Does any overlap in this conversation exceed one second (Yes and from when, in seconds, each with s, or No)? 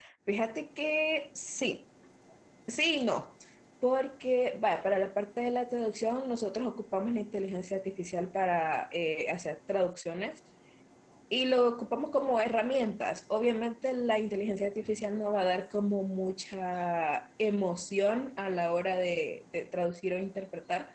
No